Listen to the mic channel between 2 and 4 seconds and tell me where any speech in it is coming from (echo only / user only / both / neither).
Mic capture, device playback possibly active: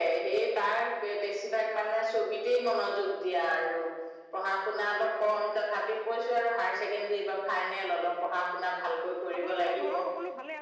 echo only